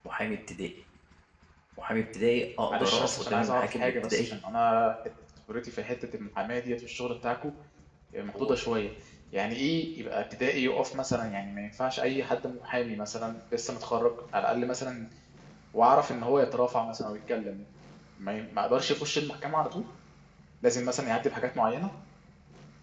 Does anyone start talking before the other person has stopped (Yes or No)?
Yes